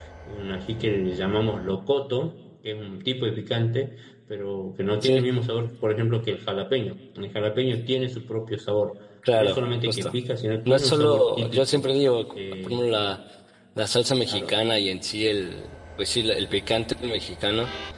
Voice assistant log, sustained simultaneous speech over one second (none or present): present